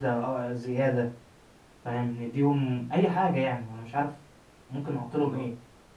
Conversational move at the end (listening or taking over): taking over